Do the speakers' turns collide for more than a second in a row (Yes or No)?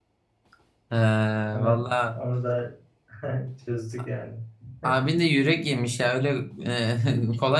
No